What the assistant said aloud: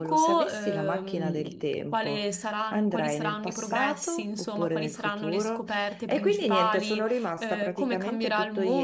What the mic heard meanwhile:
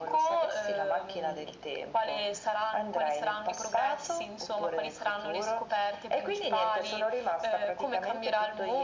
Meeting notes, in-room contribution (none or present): none